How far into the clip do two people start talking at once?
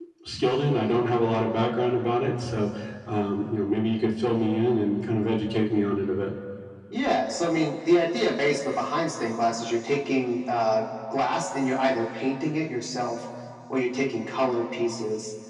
none

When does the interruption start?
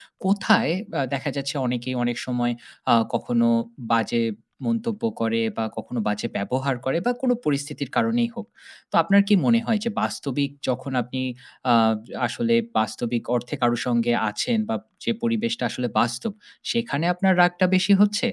none

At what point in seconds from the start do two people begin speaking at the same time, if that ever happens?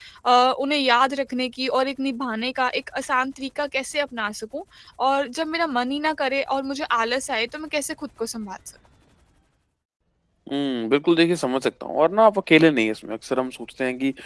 none

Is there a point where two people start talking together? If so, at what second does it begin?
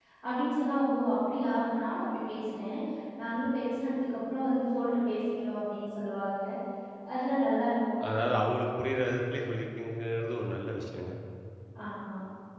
none

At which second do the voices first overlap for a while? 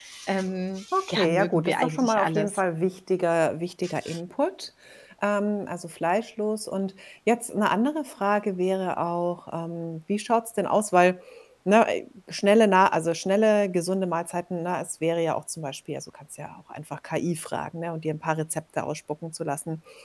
1.0 s

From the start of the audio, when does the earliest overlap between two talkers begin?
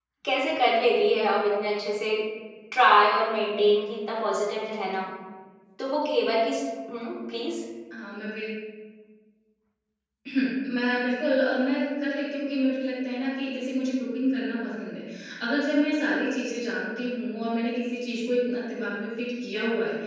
none

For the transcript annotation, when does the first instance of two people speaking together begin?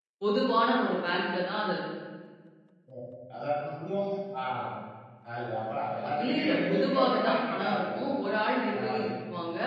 6.1 s

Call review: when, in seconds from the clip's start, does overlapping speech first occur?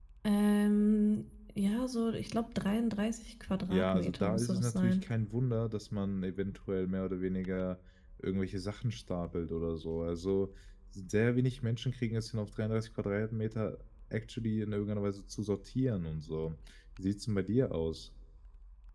3.7 s

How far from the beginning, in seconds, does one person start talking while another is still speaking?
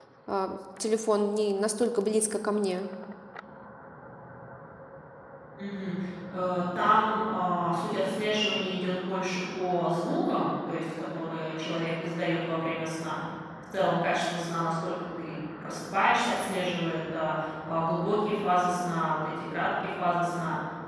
none

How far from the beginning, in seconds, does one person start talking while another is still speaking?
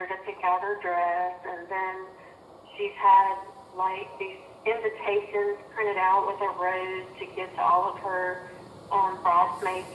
none

